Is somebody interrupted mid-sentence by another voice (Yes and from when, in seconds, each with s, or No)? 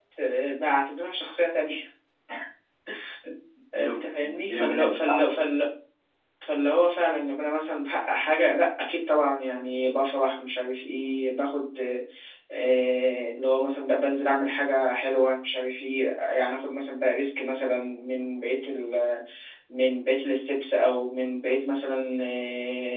Yes, from 3.7 s